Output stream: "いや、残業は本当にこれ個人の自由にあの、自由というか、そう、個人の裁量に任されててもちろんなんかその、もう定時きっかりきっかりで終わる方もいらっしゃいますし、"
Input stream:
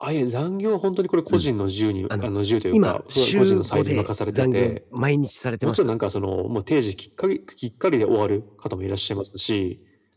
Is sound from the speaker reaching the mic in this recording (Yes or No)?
Yes